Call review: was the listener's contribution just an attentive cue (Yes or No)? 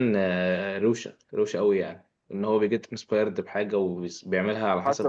No